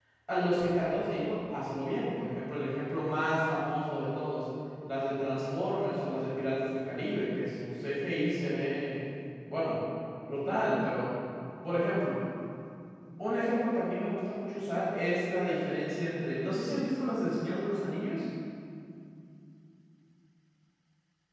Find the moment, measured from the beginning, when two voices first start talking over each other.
none

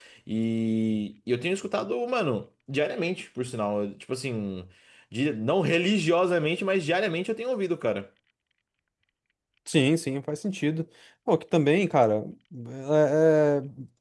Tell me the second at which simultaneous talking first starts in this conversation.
none

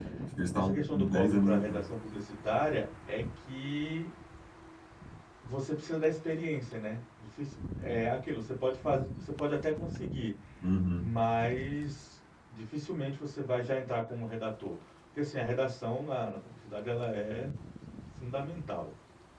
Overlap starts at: 0.5 s

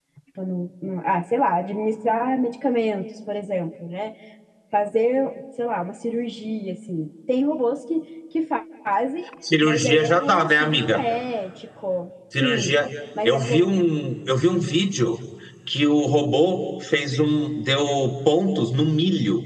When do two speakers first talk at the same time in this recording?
9.6 s

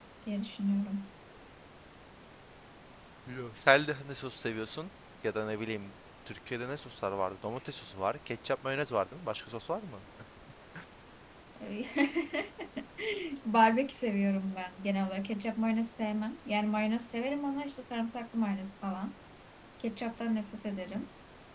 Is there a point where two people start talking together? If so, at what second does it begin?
none

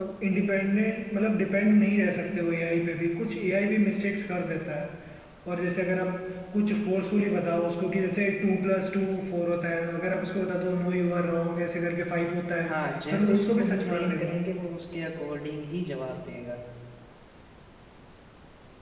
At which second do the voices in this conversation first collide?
13.1 s

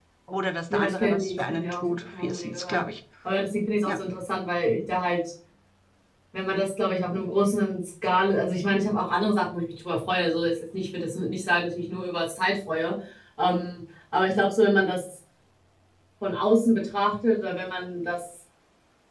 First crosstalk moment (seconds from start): 0.7 s

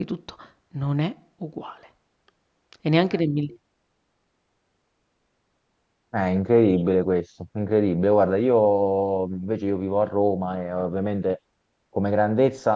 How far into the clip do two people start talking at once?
none

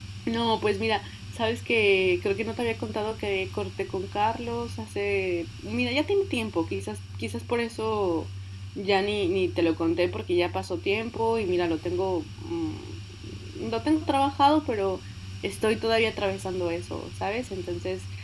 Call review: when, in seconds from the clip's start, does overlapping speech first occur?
none

